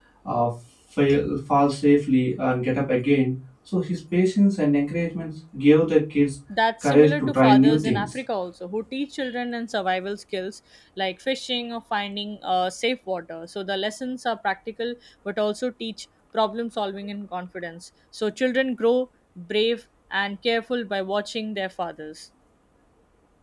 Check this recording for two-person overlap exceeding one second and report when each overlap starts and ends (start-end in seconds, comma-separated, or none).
6.8-8.1